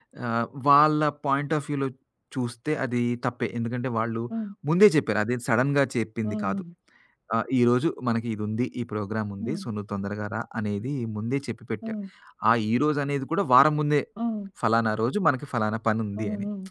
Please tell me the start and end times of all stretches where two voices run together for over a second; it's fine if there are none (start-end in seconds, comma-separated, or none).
none